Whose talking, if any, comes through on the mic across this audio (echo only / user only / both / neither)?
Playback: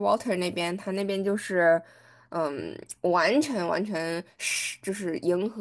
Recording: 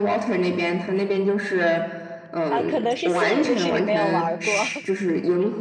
both